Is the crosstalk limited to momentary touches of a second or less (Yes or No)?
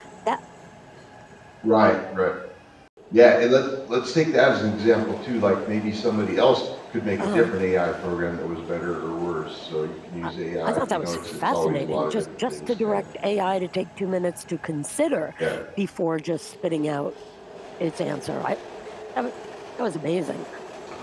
No